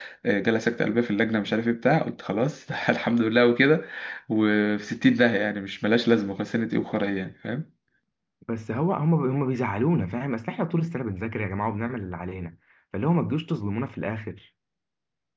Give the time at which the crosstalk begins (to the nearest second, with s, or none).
none